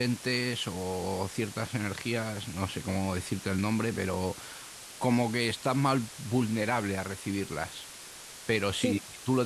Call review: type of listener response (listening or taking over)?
listening